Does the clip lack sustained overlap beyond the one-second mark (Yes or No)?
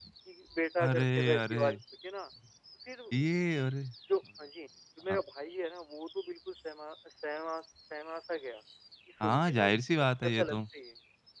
No